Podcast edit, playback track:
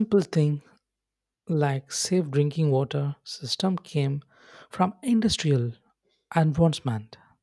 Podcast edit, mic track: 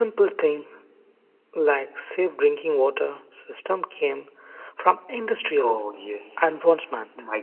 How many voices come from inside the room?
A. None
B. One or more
B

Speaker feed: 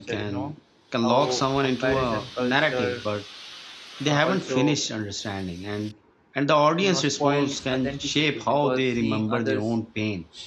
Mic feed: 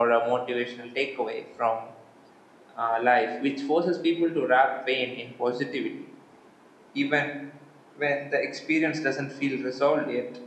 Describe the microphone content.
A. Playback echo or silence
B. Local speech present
B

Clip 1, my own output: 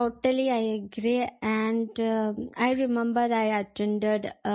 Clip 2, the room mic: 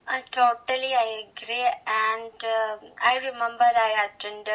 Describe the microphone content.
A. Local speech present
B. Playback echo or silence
B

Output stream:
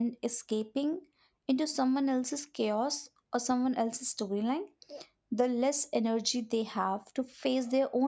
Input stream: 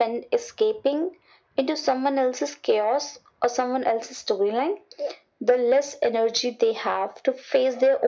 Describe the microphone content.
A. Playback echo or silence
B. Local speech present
A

